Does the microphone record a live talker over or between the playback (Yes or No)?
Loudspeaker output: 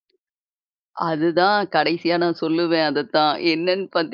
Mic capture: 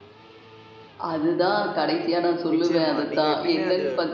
Yes